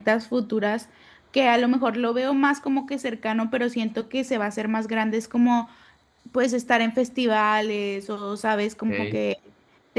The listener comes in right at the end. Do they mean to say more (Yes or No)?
No